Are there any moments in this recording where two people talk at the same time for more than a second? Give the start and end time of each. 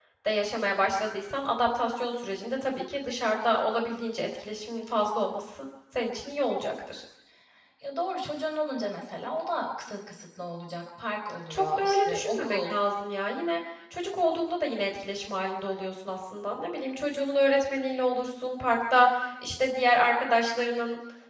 11.5-12.8

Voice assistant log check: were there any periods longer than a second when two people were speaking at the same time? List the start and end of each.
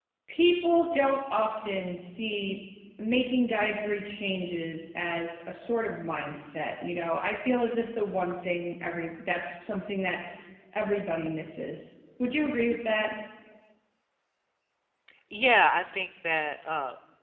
none

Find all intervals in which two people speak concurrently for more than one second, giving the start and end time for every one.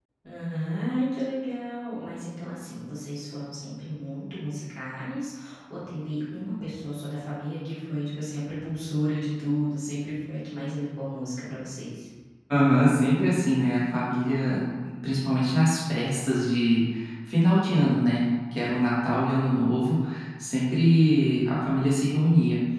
none

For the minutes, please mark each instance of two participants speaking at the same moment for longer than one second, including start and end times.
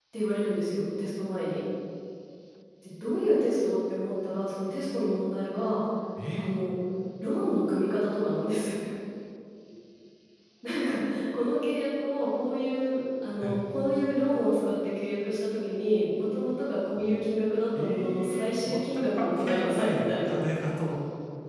17.8-20.4

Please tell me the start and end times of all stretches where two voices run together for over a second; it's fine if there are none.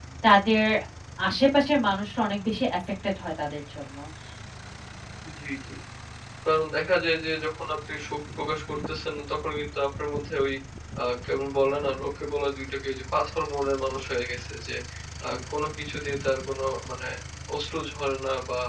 none

